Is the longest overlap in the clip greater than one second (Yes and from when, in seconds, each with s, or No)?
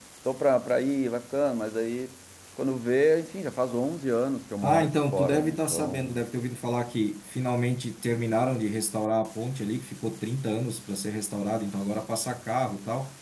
Yes, from 4.6 s